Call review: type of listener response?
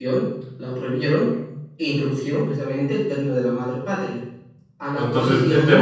taking over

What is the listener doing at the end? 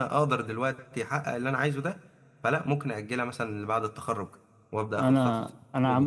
taking over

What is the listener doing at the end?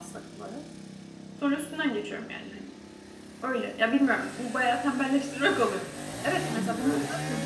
listening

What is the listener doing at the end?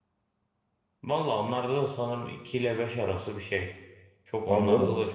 taking over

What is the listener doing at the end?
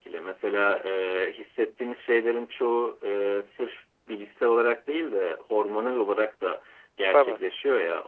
listening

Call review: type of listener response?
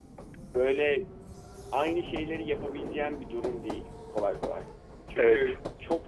listening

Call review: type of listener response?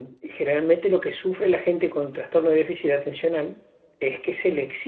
listening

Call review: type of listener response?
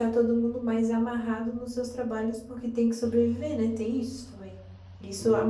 listening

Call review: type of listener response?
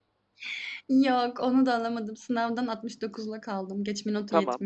taking over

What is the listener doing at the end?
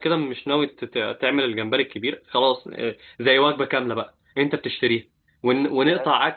listening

